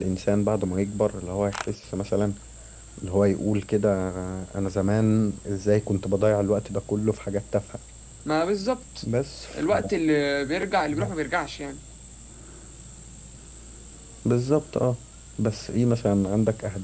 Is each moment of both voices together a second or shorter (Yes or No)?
Yes